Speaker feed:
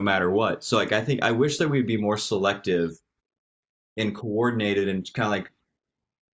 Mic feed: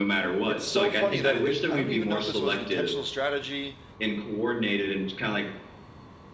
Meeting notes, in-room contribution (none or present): present